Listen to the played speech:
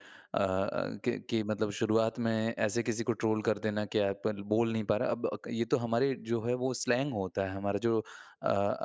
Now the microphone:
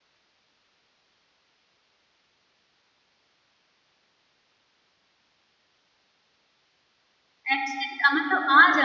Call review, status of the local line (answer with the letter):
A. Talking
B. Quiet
A